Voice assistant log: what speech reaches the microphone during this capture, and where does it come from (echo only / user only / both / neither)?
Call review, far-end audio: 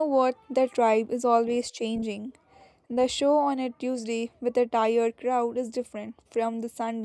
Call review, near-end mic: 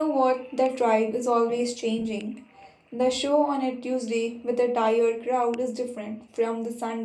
echo only